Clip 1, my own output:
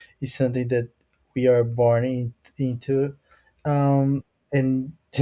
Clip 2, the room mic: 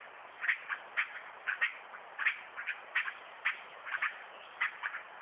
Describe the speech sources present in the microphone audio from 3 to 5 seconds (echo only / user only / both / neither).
neither